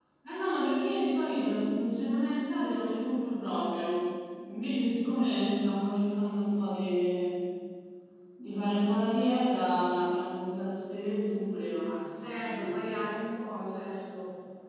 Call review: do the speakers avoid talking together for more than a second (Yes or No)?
Yes